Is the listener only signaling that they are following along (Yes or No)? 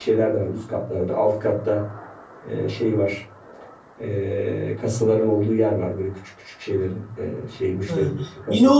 No